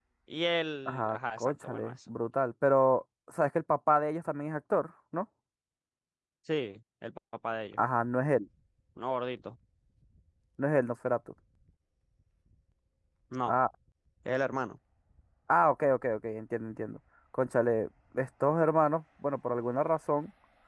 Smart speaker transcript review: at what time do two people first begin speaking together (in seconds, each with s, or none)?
0.9 s